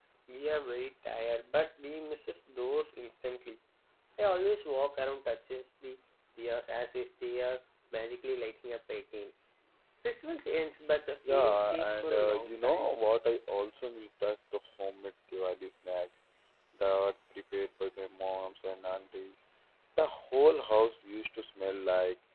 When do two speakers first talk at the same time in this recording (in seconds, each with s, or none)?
11.2 s